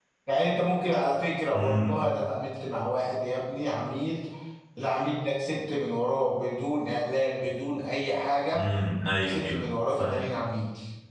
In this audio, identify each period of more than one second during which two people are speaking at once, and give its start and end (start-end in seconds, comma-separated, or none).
none